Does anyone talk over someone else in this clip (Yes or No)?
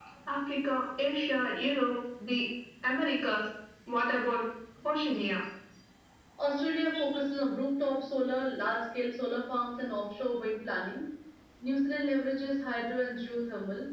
No